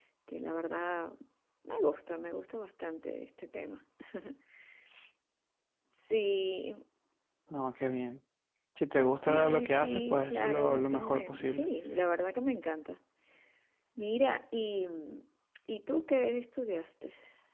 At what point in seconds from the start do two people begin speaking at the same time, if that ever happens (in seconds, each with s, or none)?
9.2 s